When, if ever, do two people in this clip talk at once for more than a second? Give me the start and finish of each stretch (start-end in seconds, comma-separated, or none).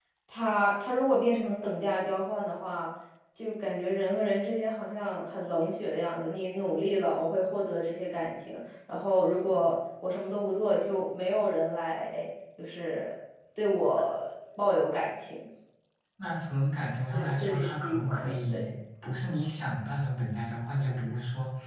17.1-18.7